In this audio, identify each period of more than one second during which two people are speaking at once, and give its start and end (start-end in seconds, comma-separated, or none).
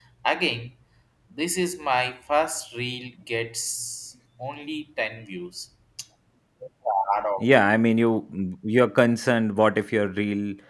none